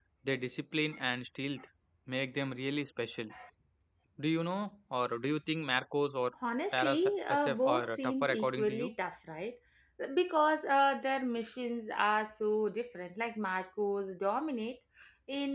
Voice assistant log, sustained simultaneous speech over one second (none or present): present